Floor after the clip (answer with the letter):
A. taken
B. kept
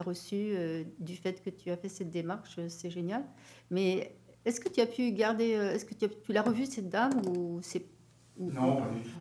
A